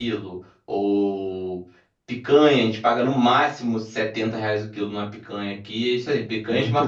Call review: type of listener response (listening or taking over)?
listening